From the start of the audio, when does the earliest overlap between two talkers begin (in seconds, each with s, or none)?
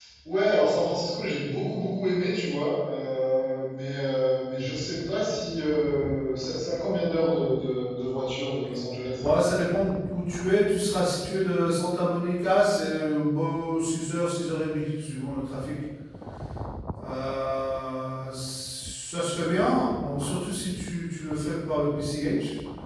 none